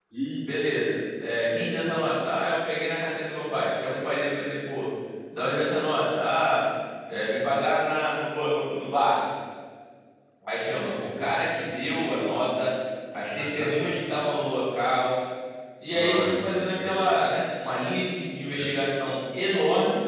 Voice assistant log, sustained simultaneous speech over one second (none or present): present